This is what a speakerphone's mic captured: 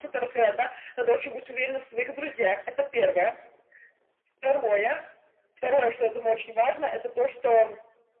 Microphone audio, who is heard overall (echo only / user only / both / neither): echo only